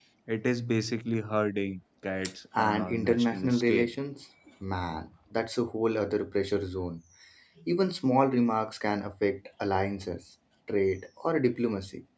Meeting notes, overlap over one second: present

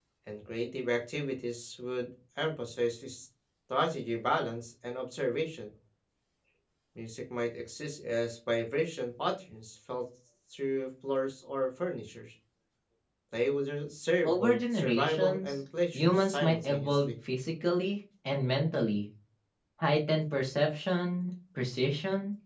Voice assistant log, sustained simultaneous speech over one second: present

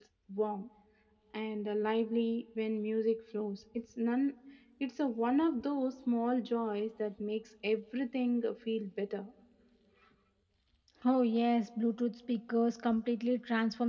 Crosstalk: none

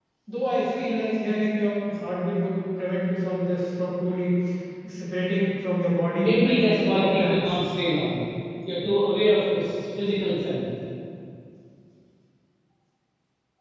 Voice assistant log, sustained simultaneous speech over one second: present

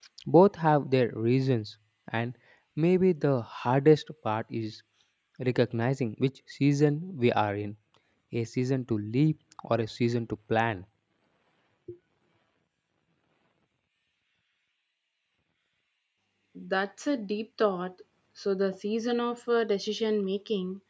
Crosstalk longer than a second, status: none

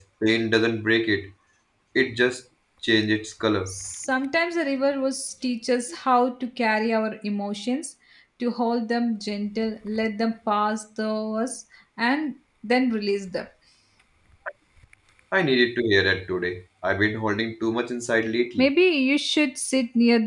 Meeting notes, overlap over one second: none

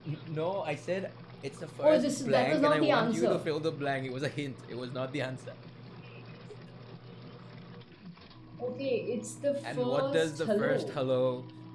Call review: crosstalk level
present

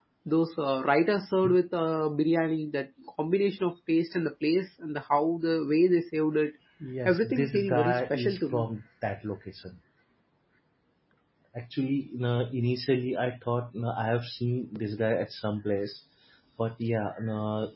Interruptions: present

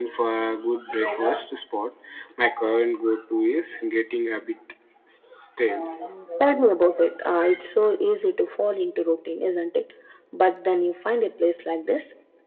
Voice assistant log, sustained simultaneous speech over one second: none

